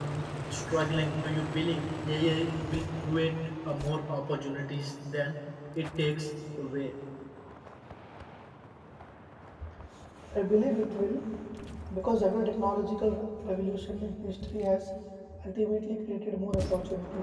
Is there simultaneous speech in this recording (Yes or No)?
No